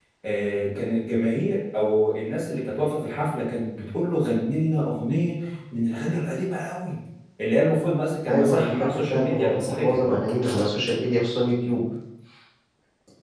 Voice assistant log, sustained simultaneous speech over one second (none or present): present